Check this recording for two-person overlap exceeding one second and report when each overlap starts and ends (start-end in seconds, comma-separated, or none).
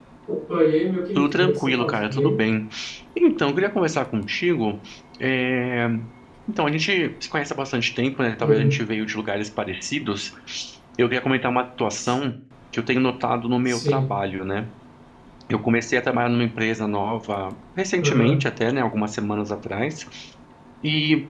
1.1-2.4